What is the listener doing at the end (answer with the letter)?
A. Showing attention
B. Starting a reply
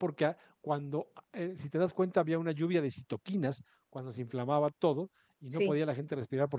A